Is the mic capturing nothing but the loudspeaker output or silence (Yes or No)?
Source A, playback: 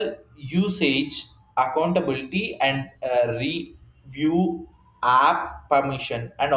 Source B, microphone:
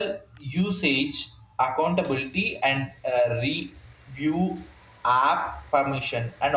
Yes